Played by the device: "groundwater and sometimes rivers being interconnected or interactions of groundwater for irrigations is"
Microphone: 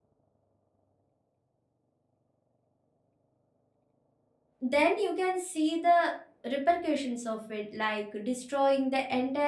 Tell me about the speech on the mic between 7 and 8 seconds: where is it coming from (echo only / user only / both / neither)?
user only